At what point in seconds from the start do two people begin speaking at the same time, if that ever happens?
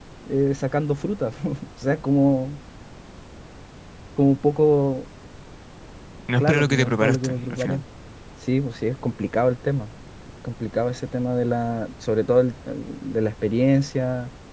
6.4 s

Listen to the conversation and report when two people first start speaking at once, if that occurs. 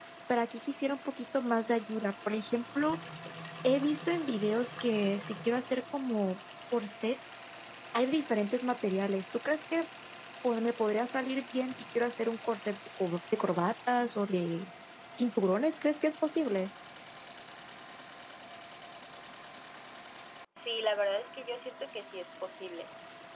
none

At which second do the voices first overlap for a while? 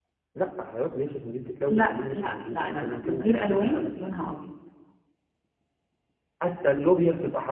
1.7 s

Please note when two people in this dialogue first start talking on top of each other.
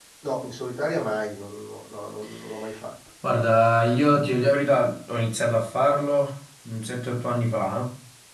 none

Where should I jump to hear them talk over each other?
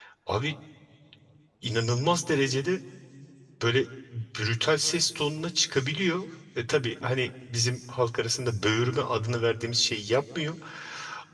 none

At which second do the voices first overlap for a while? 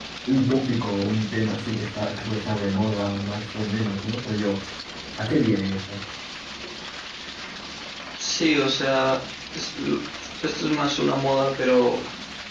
none

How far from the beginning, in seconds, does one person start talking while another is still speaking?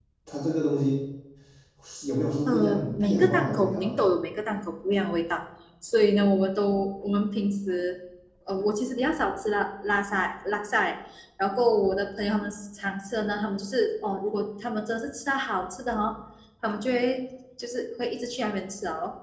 2.5 s

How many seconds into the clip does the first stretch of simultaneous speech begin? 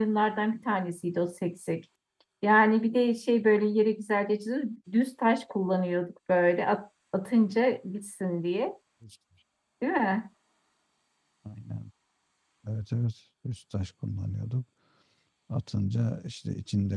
none

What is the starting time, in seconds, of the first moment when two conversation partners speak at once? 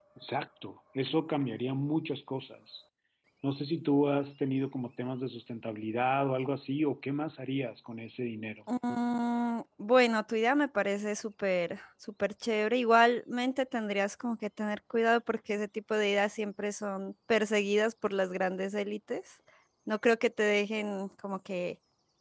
none

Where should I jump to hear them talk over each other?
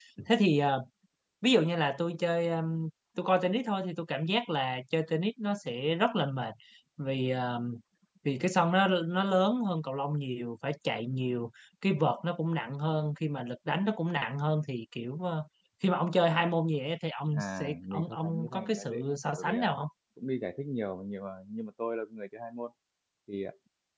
17.3 s

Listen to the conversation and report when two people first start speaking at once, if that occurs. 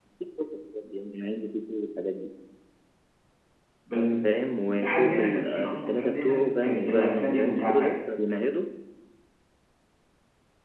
4.6 s

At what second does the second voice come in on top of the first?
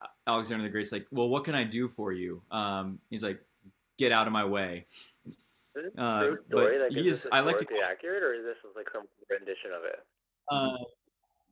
6.0 s

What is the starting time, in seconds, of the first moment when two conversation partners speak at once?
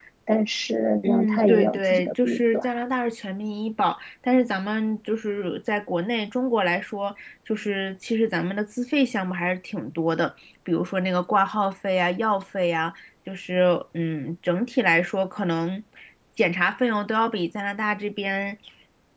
1.0 s

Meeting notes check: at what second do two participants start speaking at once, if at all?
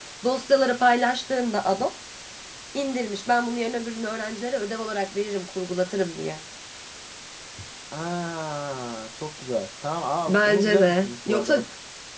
10.3 s

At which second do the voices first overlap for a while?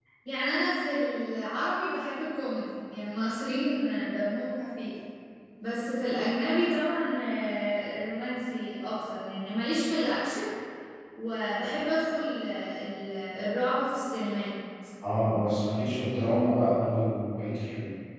none

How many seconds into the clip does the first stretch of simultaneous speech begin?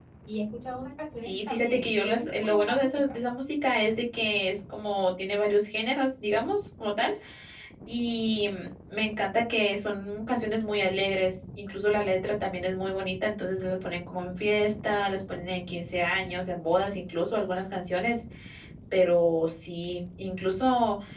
1.2 s

